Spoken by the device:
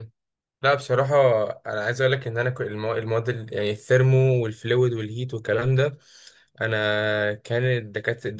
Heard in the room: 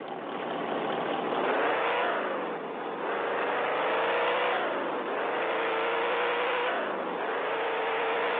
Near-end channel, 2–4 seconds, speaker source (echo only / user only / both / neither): neither